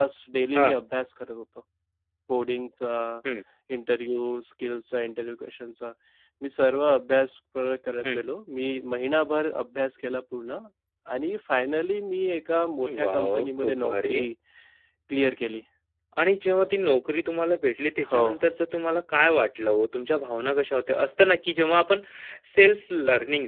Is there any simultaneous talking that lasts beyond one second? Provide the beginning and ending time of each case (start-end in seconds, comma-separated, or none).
13.0-14.2